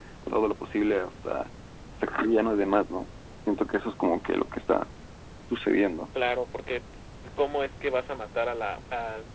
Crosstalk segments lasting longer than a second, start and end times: none

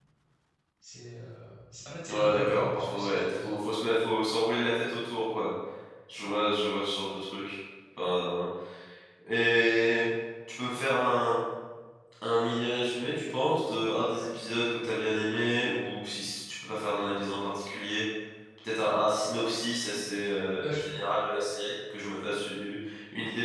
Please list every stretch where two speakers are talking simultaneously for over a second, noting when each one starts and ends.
2.1-3.5

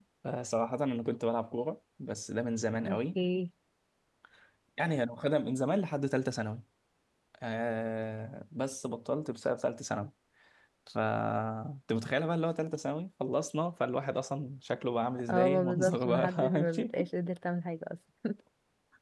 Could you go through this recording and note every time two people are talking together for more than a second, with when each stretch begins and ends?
15.3-16.9

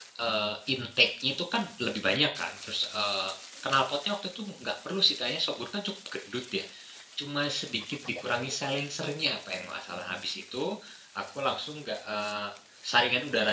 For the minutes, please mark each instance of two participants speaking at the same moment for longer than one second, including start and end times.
none

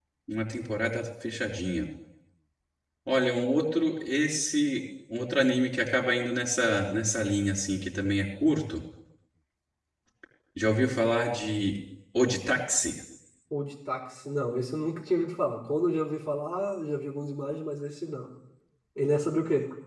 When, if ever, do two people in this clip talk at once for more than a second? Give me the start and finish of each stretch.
none

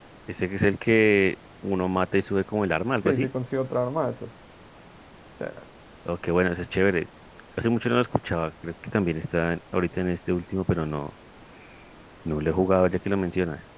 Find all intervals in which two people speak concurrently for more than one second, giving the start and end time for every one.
none

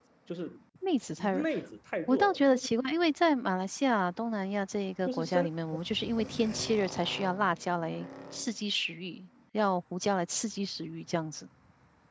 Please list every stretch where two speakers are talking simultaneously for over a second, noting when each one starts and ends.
none

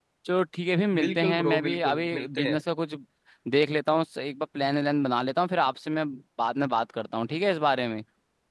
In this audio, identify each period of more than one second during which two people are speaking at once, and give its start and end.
1.0-2.6

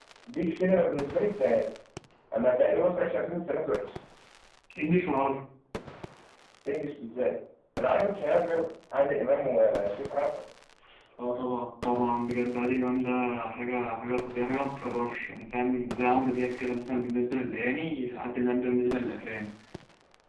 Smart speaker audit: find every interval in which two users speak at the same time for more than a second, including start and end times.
none

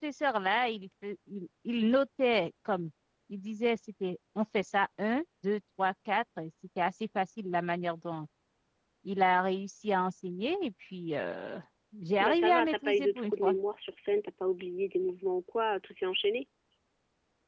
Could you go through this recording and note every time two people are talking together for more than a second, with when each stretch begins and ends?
12.2-13.6

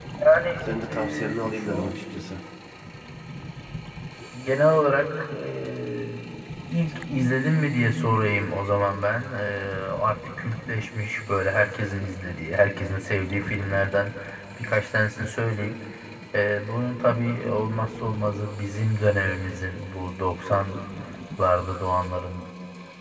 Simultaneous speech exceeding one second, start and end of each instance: 0.6-1.9

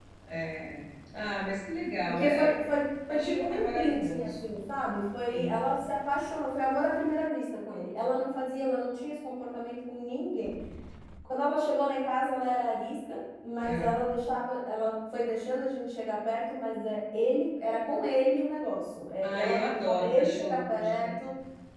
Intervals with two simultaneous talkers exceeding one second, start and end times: 3.1-4.3, 19.2-21.1

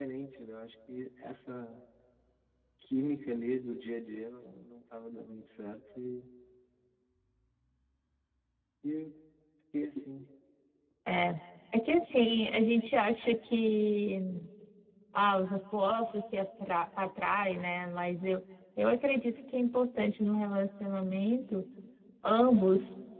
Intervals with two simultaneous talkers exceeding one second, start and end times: none

